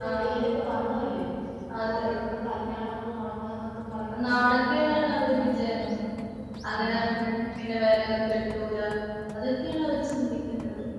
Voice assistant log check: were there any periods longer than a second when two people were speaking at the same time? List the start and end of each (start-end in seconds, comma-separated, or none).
4.3-5.8